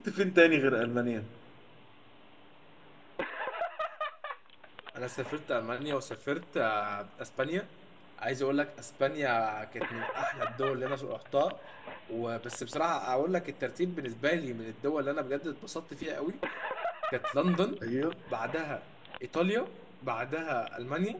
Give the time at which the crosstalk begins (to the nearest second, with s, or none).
none